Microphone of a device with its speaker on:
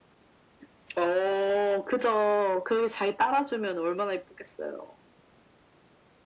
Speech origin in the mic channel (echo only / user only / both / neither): echo only